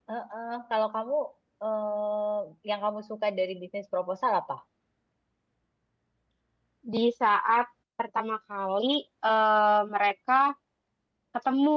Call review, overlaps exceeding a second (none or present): none